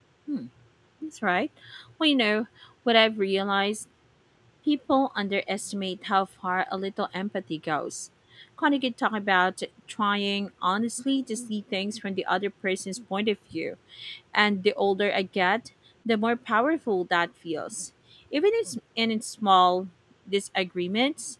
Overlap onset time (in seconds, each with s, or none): none